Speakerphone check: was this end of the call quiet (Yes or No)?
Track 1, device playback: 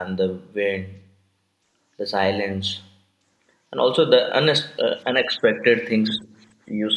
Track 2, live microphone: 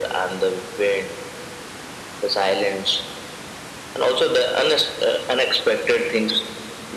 Yes